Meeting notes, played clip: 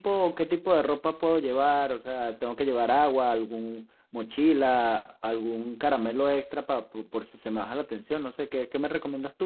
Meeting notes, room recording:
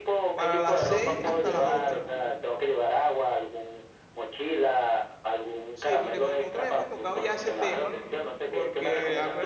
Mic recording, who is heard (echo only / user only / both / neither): both